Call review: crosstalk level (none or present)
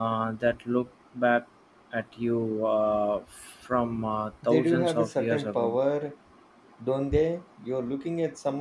present